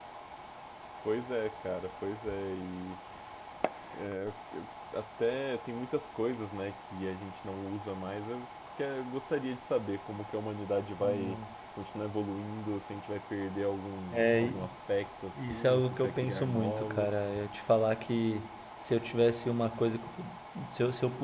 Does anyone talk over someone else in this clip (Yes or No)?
Yes